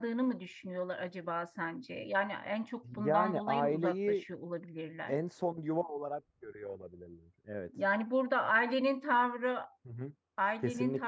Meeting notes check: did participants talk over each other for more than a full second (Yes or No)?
Yes